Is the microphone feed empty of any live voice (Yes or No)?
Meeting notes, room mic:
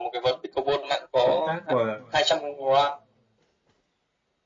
No